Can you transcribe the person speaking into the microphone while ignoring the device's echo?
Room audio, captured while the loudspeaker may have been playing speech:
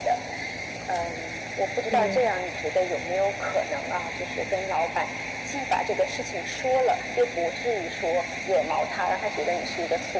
对，

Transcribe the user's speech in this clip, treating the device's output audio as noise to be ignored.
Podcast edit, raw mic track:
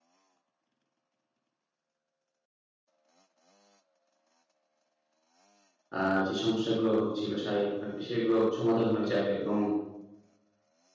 আ যে সমস্যাগুলো হচ্ছিল শারীরিকভাবে সেগুলো সমাধান হয়ে যাবে এবং

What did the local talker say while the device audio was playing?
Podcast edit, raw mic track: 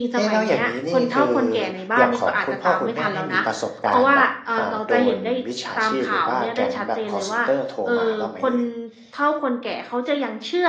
none

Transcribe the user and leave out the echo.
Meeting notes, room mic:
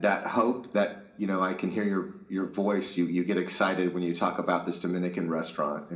none

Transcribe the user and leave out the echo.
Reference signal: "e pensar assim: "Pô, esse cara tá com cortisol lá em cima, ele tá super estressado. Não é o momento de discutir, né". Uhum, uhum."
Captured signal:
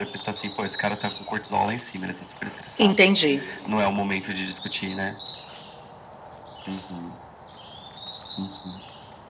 entendi,

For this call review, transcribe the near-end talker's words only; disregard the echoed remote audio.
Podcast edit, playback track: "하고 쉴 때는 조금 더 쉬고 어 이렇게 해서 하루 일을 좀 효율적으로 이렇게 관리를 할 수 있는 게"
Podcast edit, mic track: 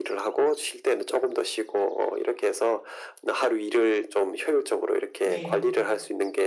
네.

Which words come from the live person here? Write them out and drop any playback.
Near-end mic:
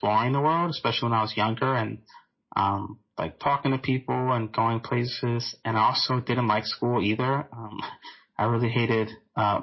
none

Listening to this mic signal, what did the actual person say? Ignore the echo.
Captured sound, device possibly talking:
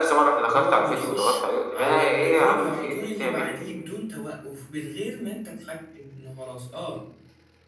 اللي هو بتخش على الفيديو على طول اللي بعديه بدون توقف، من غير ما أنت تحكّم إنه خلاص آه.

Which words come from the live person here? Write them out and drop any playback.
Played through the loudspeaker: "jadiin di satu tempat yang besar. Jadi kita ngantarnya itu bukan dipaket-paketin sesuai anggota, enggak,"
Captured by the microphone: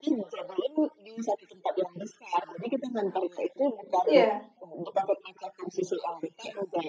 Iya.

